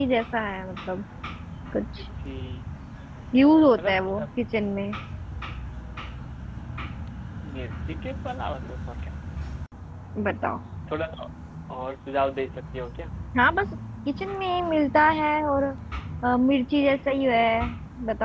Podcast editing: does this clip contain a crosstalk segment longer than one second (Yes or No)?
No